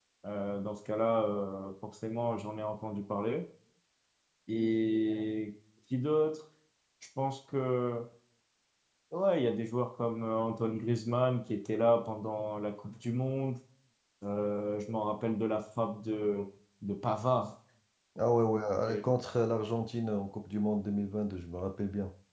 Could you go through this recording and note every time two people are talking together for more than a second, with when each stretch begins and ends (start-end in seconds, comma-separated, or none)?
none